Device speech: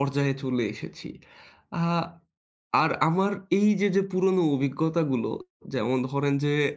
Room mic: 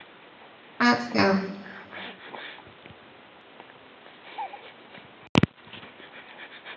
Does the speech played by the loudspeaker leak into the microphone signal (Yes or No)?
No